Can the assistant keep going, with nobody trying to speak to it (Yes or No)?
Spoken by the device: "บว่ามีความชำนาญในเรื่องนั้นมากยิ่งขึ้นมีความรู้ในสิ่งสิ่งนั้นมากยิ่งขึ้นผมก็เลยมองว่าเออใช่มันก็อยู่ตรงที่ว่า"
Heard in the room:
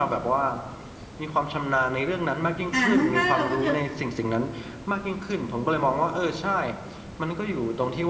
No